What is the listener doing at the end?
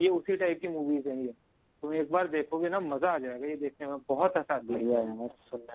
taking over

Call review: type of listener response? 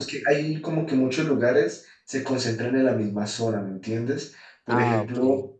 listening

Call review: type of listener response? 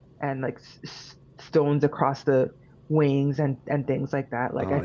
taking over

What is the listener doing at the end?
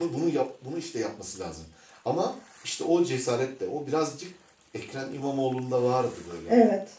listening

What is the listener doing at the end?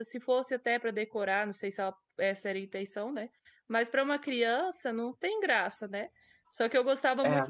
listening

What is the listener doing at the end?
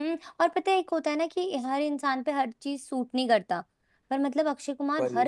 listening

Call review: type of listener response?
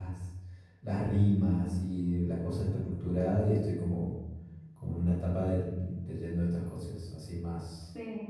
taking over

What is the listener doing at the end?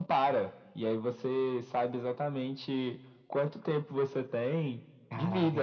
taking over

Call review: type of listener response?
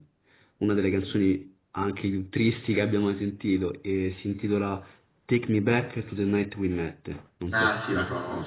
taking over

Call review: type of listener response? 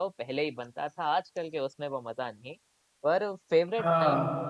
listening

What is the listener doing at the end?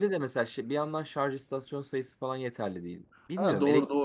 taking over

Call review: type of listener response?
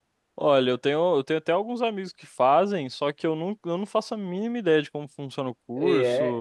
taking over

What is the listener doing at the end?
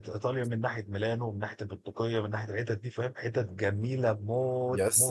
taking over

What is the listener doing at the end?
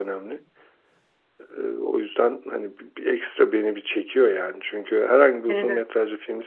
listening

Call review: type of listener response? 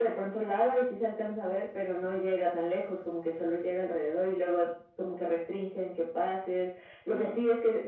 listening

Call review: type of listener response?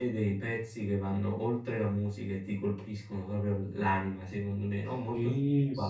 taking over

